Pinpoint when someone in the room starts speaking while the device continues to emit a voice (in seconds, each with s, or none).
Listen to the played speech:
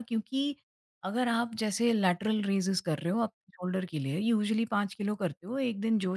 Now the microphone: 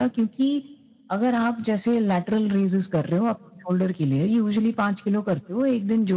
none